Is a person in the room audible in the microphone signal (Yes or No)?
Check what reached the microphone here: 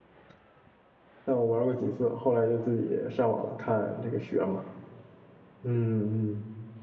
Yes